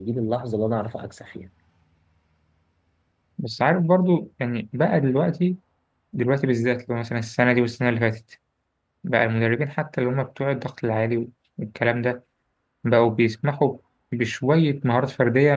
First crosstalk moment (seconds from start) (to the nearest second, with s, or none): none